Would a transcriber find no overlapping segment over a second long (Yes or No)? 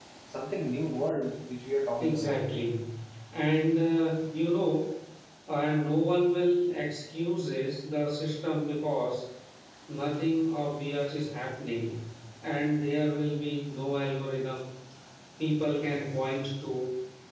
Yes